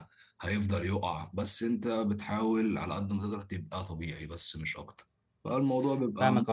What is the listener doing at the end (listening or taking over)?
taking over